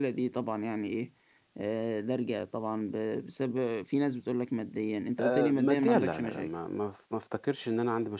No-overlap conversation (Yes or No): No